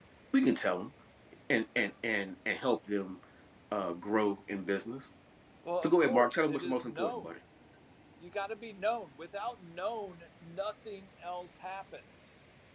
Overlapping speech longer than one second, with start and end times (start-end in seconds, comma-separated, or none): 5.8-7.3